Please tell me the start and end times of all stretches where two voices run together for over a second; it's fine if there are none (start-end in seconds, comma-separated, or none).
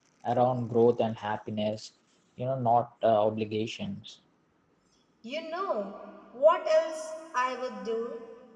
none